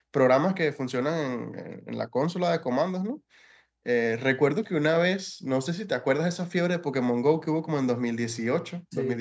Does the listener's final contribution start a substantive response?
No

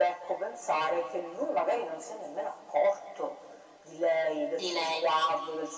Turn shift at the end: No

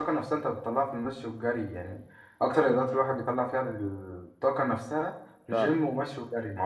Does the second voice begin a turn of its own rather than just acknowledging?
No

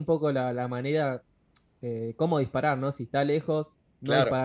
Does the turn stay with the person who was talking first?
Yes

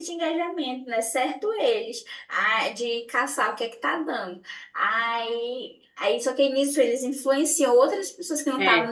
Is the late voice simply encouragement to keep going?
Yes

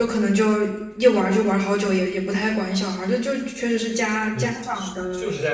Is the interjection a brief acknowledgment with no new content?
No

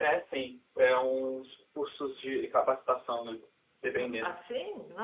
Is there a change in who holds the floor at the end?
Yes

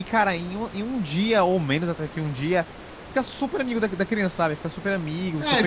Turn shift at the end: Yes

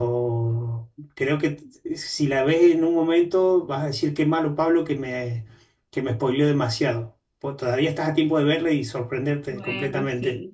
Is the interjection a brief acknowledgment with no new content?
No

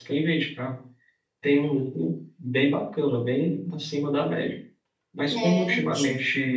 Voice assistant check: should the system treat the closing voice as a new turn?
No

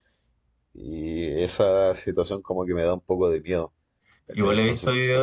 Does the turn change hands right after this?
Yes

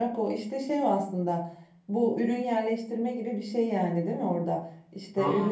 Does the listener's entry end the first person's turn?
No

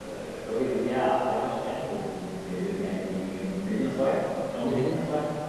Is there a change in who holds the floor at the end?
No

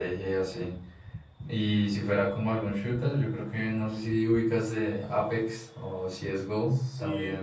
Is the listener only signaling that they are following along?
No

